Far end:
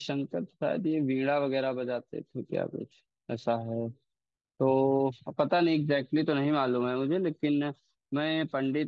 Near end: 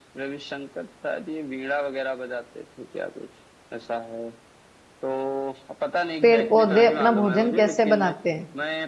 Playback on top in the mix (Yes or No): No